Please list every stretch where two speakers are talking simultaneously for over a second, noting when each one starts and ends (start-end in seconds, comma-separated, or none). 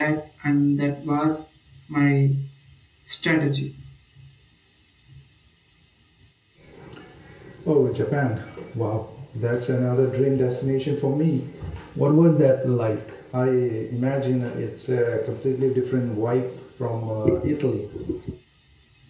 none